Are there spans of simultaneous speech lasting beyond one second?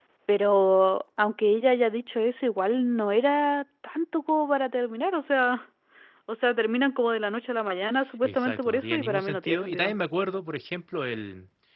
Yes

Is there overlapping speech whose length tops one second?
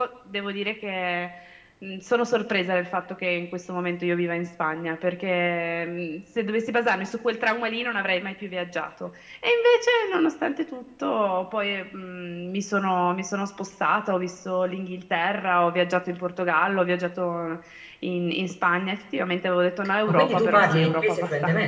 Yes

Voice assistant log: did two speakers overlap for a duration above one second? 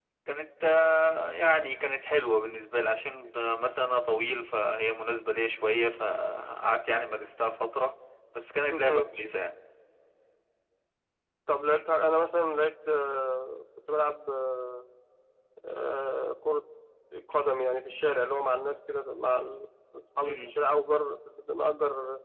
No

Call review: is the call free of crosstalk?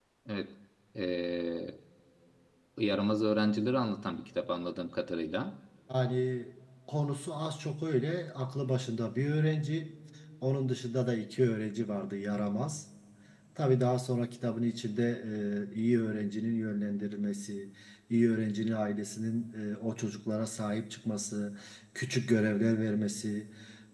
Yes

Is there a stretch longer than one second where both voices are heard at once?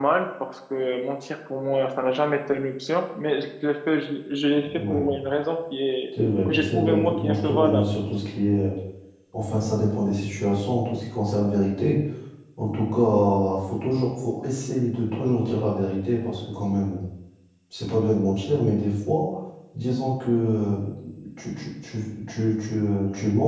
Yes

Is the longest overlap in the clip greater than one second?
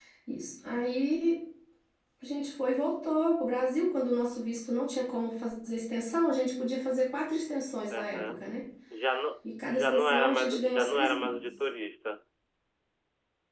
Yes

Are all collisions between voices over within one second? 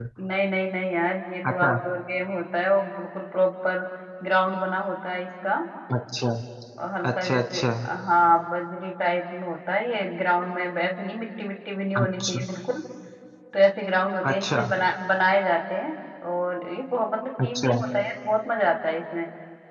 Yes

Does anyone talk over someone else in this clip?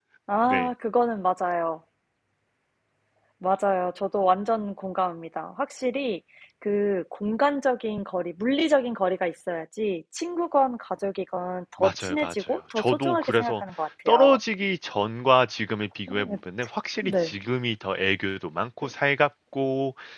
Yes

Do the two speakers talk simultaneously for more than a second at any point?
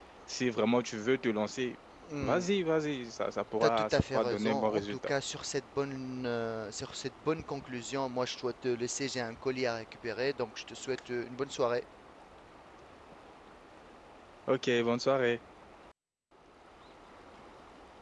Yes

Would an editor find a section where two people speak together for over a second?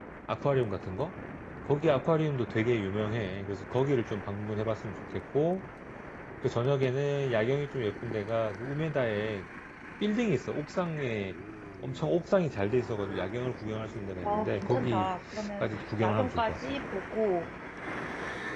Yes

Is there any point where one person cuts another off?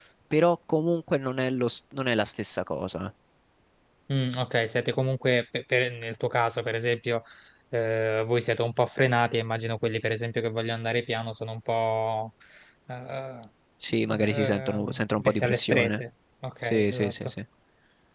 Yes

